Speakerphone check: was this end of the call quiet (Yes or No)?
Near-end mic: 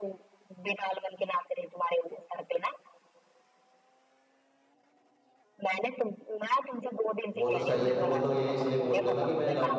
No